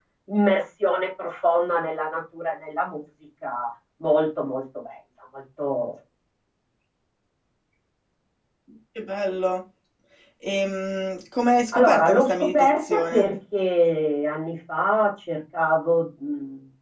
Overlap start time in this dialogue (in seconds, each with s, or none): 11.7 s